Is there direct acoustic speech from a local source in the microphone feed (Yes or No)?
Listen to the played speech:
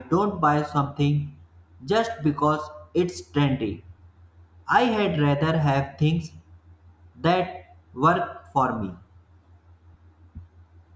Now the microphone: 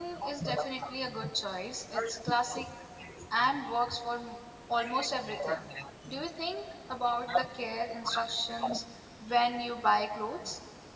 Yes